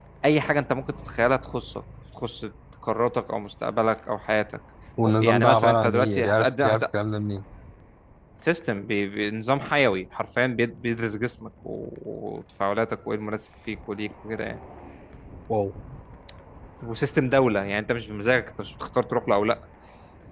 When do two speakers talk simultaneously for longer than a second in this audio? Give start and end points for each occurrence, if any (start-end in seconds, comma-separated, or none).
5.2-6.8